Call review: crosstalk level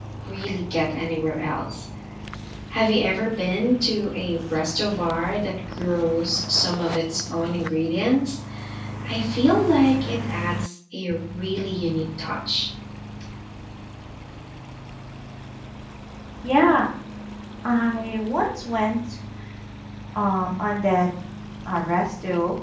none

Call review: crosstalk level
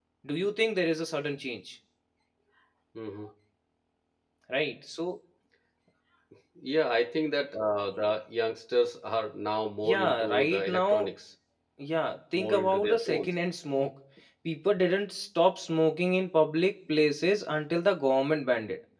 present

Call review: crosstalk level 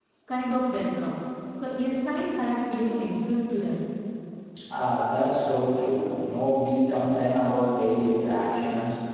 none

